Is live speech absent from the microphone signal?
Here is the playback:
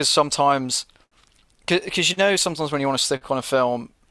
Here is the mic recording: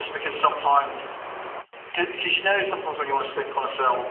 Yes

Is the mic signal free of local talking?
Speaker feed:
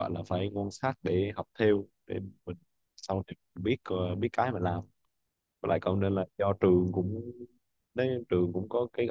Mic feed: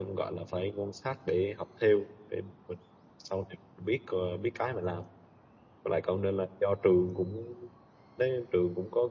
Yes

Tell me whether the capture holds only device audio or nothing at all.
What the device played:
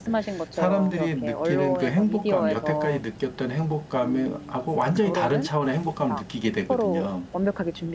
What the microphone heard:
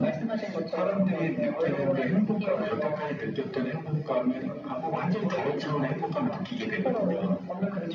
Yes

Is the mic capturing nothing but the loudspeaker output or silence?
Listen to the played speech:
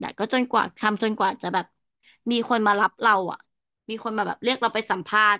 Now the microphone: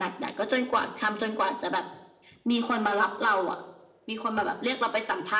Yes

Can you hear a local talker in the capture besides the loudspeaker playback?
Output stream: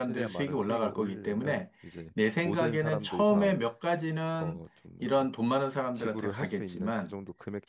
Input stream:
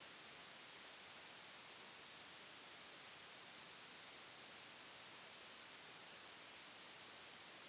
No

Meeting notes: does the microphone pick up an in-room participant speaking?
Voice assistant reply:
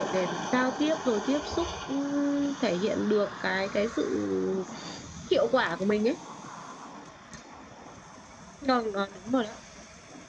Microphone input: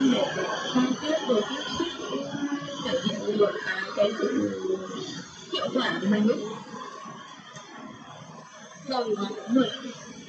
No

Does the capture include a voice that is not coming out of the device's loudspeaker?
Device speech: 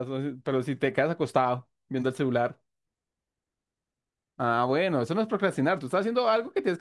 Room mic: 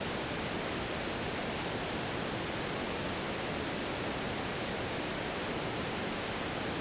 No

